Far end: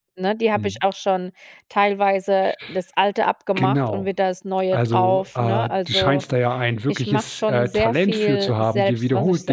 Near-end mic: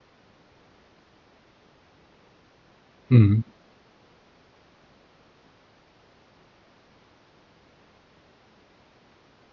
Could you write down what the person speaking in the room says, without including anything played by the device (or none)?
mhm,